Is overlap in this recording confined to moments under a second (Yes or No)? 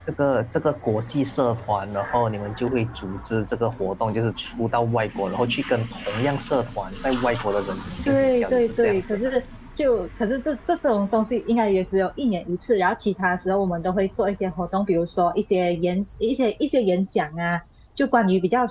No